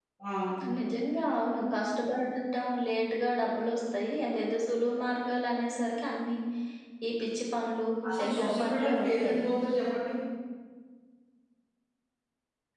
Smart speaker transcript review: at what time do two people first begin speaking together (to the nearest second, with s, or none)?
8 s